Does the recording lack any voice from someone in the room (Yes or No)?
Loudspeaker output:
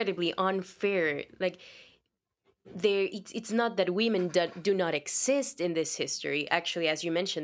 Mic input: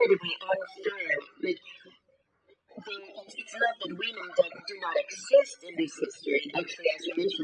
Yes